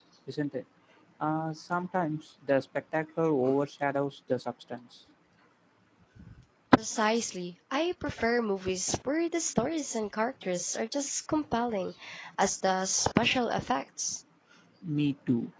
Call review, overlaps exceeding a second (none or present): none